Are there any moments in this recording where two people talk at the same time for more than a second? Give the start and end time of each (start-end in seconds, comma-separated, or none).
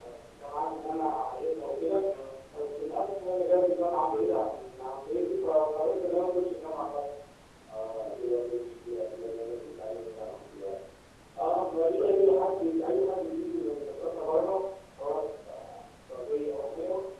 none